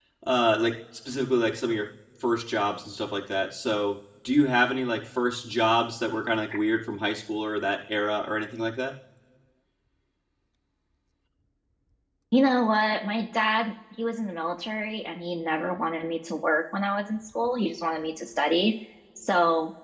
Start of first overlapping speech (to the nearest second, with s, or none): none